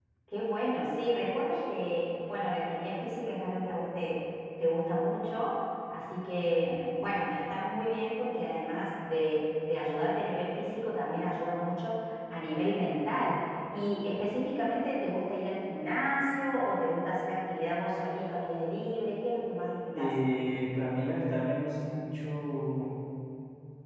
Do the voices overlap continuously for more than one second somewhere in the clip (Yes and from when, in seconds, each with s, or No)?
No